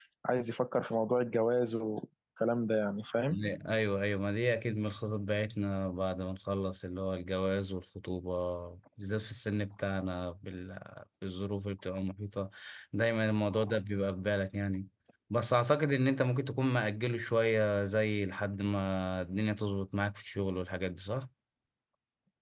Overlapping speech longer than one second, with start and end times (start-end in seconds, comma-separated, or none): none